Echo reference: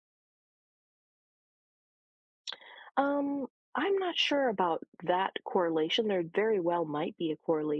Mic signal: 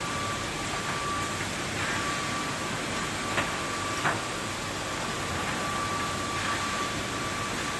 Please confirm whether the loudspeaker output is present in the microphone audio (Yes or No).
No